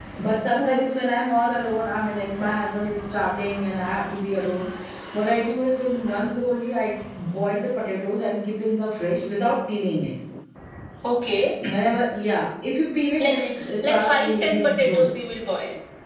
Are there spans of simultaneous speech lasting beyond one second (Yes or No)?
Yes